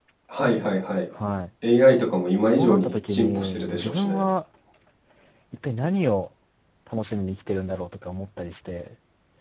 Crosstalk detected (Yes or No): Yes